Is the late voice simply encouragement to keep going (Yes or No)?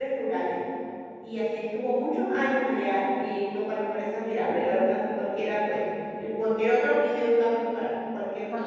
No